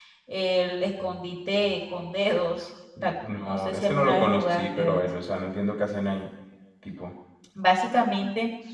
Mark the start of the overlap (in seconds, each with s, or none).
3.0 s